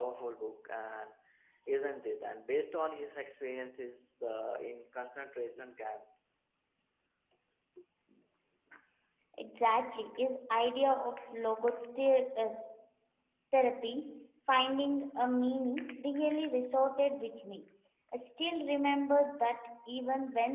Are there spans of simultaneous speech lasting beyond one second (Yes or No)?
No